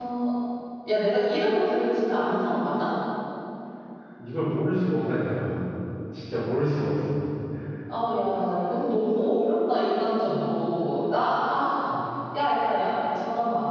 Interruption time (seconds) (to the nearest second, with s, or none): none